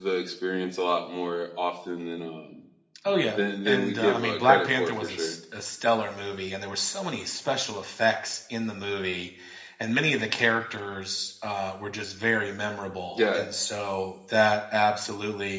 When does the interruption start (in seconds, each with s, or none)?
3.4 s